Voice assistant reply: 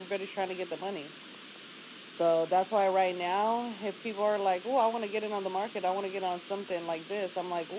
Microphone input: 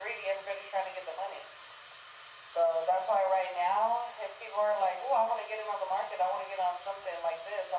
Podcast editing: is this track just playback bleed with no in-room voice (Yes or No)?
Yes